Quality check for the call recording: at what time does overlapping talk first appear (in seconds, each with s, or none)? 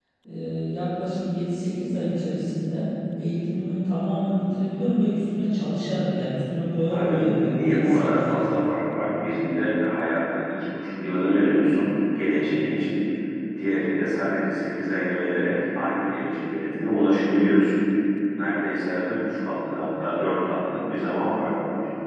6.9 s